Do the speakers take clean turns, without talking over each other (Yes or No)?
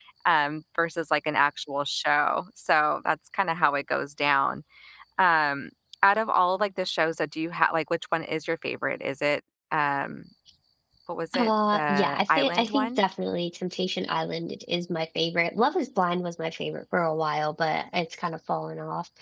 No